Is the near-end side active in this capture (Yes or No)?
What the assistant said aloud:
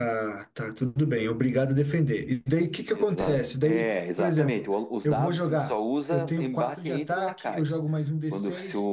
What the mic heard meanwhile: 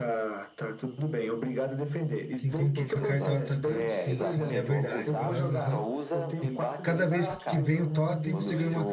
Yes